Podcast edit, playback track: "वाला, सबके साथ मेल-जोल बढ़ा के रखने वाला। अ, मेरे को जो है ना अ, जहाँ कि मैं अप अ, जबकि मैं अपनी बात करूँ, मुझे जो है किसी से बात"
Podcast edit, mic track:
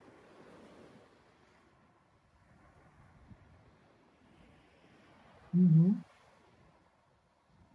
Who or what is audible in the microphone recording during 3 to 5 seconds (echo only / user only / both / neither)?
neither